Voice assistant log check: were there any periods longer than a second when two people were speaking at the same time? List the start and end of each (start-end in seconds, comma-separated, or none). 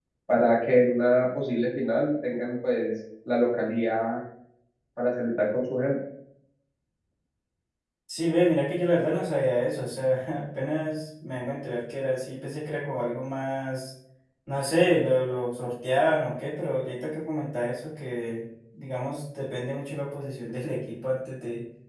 none